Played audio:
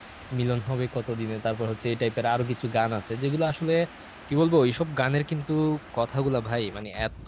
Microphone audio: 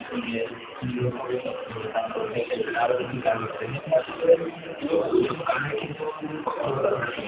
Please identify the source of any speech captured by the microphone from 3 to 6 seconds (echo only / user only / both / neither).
echo only